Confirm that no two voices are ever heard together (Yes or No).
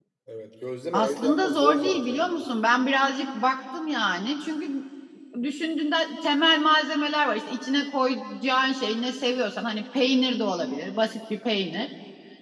No